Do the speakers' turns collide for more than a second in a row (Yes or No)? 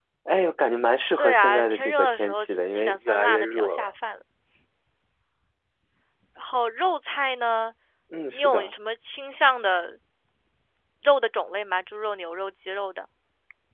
Yes